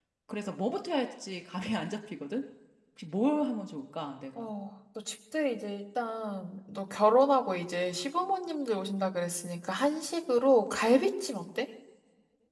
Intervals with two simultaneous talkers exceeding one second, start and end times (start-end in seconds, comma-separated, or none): none